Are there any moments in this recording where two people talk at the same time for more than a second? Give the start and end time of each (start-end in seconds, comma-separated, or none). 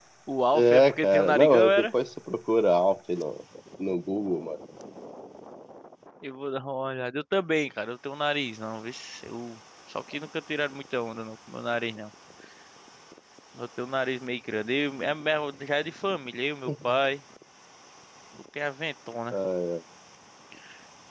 0.5-1.9